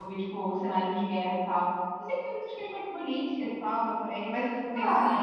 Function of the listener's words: taking over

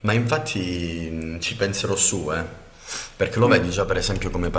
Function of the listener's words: listening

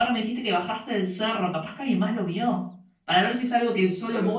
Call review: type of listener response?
taking over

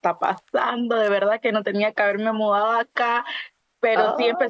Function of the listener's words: listening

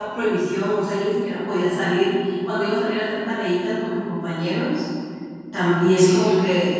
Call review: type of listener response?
listening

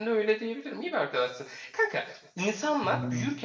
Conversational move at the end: listening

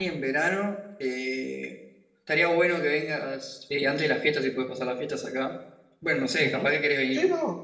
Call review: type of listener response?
taking over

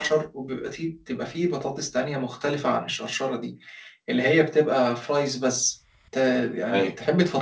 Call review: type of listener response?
taking over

